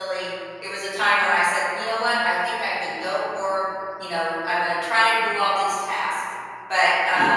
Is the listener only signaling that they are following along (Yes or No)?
Yes